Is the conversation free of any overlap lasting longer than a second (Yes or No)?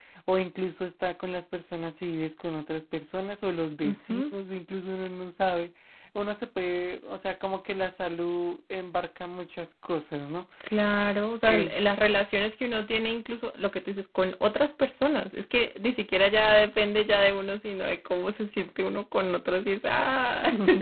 Yes